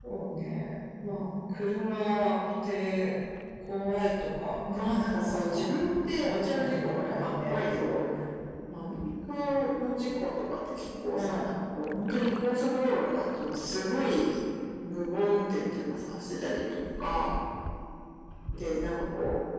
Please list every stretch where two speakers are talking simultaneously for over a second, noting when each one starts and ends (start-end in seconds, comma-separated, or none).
6.2-7.6